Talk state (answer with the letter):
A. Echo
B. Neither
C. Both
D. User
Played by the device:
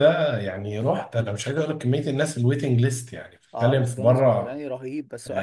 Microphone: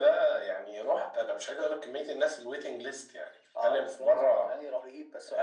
A